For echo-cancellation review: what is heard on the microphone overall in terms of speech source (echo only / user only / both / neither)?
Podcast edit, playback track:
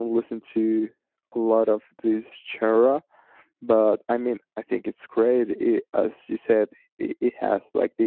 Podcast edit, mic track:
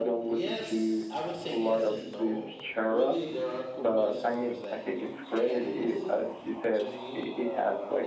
both